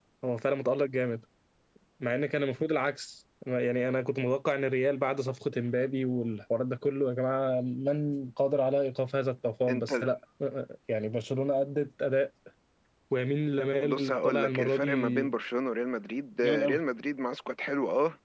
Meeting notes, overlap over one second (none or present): present